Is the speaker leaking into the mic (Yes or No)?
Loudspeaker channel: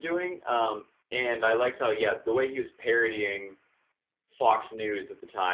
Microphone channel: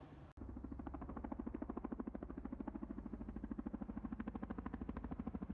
No